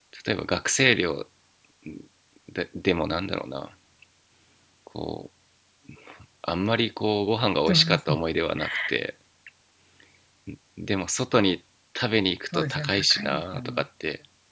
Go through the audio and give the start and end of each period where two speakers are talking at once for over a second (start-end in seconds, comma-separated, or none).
12.5-13.8